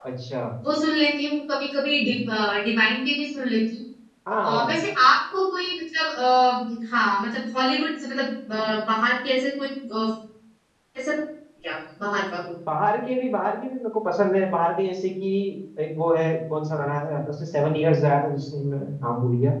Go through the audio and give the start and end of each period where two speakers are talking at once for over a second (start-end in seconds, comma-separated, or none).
none